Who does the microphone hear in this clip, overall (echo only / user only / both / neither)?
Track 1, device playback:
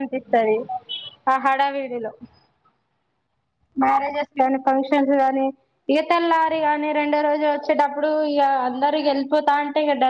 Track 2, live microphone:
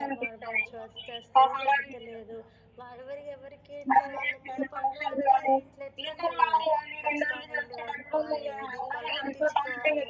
both